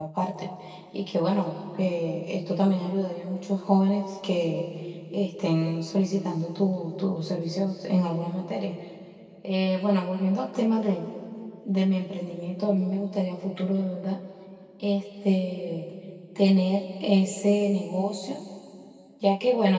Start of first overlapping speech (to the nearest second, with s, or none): none